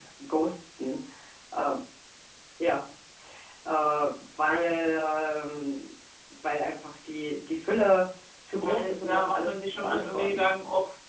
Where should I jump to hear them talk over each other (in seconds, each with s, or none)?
8.6 s